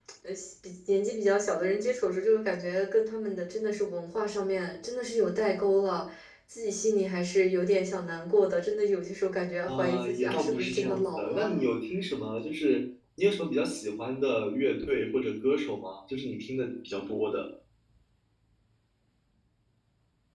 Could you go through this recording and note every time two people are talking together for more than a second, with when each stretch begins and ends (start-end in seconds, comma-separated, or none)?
9.7-11.5